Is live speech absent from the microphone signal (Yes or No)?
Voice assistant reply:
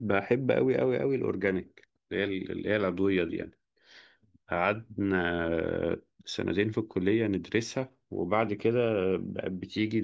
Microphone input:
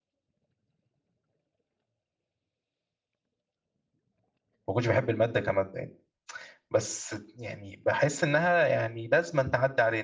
No